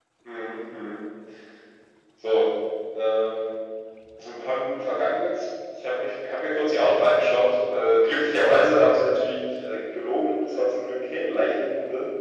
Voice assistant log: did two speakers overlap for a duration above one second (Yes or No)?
No